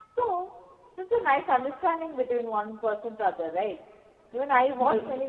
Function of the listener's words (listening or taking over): listening